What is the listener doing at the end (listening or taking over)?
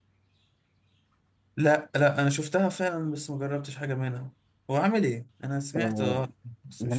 taking over